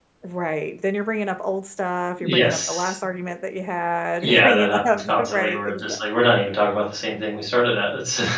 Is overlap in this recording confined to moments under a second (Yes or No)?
No